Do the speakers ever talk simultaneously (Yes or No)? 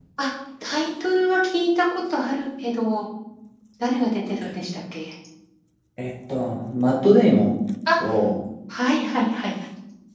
No